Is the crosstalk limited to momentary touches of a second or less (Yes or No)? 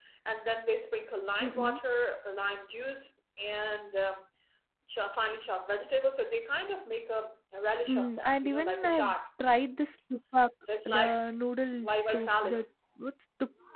No